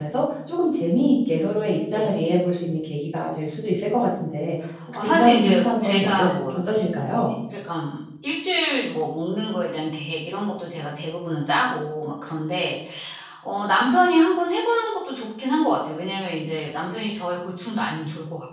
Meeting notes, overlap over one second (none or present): present